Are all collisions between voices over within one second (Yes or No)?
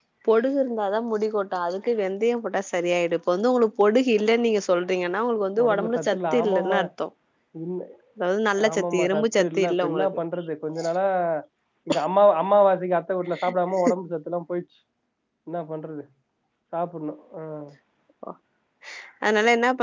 No